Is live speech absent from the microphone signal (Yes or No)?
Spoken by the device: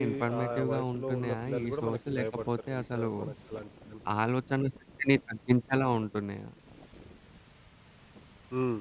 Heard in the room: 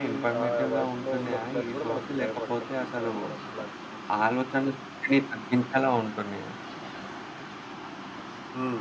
Yes